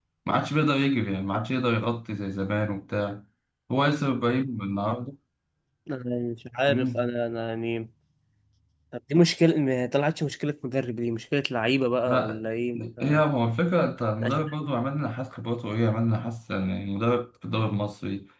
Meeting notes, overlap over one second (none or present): none